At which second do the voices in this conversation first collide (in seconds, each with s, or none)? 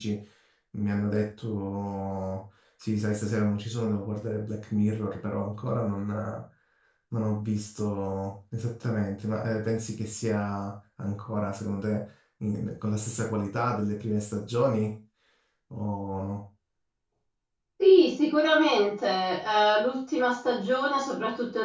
none